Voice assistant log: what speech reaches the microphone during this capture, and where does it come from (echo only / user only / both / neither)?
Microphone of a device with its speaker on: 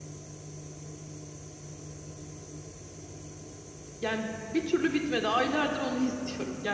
user only